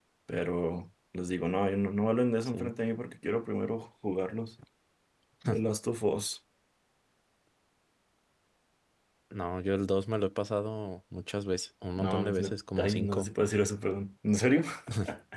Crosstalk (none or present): present